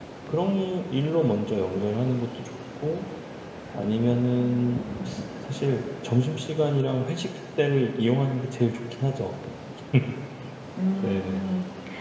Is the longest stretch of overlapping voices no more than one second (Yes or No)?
Yes